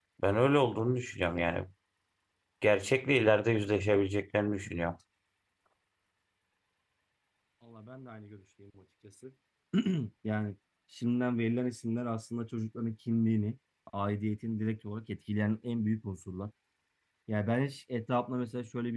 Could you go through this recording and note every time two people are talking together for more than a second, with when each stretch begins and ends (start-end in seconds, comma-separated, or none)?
none